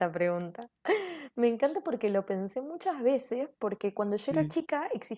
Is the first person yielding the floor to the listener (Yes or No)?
No